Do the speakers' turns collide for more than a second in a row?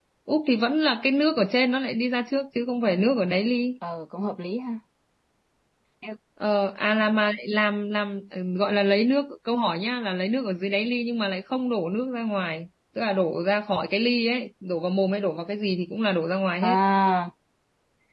No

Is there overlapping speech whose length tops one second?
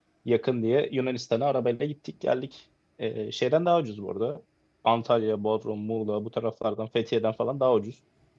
No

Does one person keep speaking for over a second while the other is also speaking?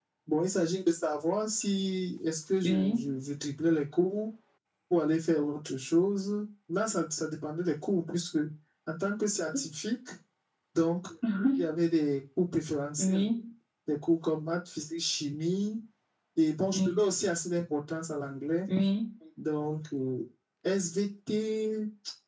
No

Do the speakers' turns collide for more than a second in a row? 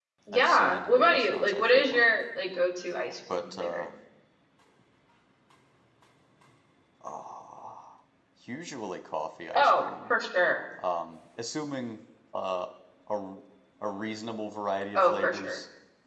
Yes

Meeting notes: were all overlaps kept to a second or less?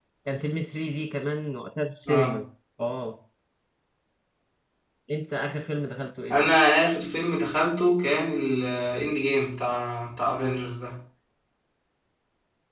Yes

